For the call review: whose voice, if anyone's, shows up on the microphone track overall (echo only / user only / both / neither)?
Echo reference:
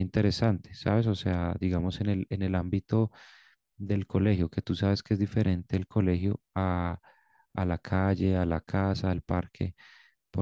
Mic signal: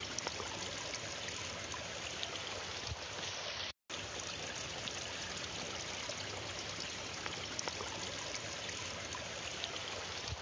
neither